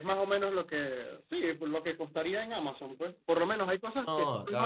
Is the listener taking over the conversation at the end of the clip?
No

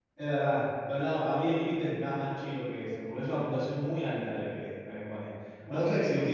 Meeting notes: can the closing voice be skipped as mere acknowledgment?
Yes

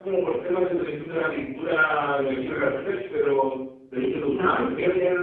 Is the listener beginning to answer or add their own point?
Yes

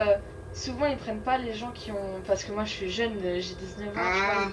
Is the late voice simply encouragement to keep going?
Yes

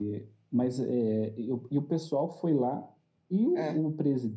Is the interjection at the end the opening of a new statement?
No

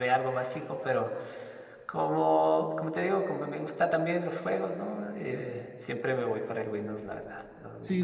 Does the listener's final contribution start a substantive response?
Yes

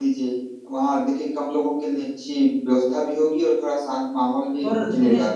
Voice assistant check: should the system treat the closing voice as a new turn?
Yes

